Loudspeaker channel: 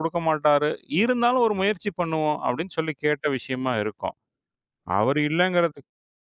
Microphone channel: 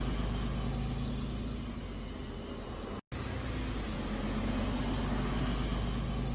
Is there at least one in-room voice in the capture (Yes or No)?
No